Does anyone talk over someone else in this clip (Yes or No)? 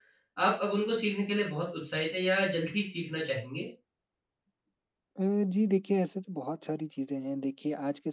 No